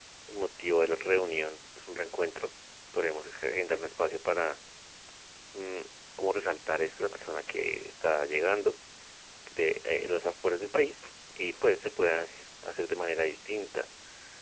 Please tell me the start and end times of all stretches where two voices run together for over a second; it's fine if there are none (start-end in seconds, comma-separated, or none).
none